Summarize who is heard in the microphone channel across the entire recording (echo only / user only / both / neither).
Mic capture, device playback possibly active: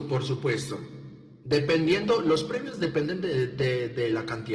echo only